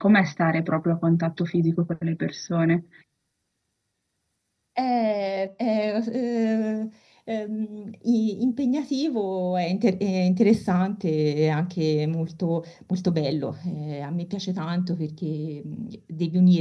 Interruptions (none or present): none